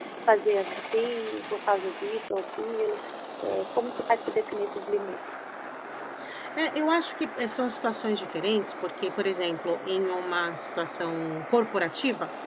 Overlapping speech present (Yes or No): No